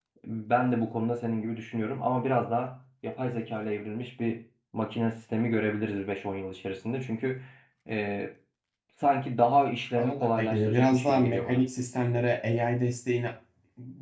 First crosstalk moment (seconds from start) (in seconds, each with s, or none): 10.0 s